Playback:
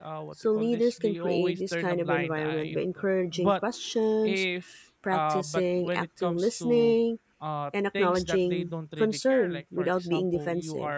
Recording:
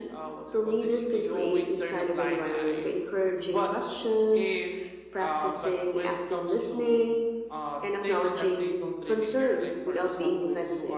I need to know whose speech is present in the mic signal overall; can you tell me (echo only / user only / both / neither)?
echo only